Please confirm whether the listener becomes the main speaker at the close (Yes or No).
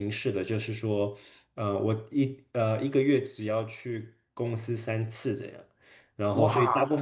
No